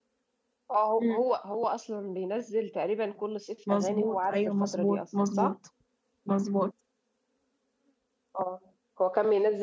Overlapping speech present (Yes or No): Yes